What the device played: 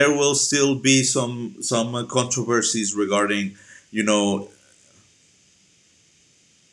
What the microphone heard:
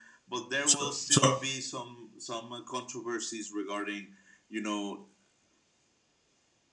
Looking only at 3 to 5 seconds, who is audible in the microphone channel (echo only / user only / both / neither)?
echo only